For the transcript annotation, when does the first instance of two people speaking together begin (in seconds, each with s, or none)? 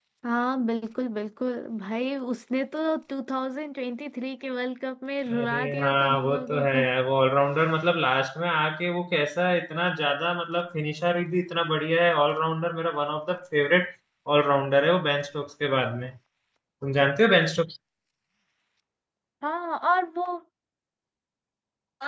5.3 s